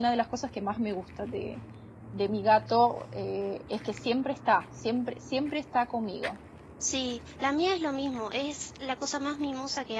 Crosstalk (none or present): none